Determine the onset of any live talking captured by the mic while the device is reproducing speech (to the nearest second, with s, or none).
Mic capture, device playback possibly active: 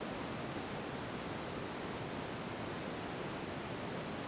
none